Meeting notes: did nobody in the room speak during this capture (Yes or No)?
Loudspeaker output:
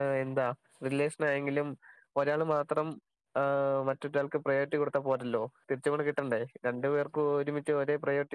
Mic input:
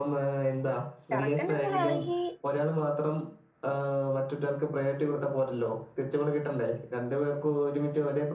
No